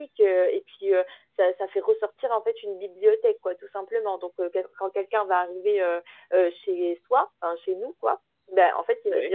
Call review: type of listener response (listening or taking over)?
listening